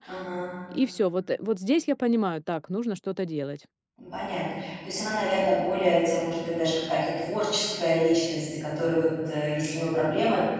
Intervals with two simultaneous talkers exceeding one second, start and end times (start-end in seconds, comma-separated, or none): none